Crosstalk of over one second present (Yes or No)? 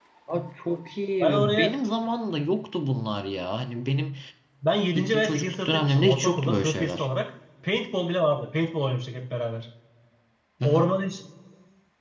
Yes